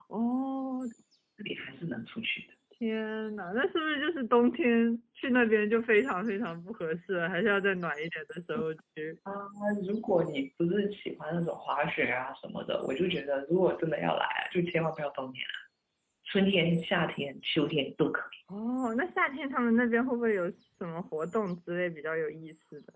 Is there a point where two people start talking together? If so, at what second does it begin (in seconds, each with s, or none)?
none